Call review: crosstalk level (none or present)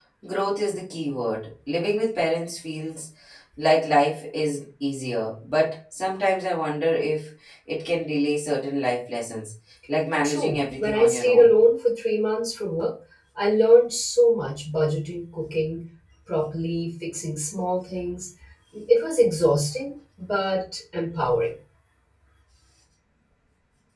present